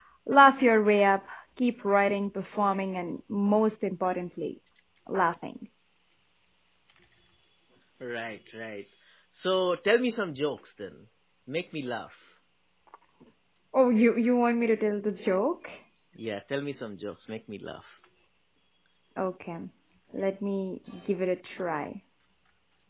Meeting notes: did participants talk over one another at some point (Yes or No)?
No